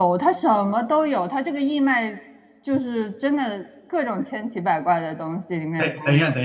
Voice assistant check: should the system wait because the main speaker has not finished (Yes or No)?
No